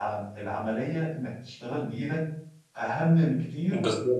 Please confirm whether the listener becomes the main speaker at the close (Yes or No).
No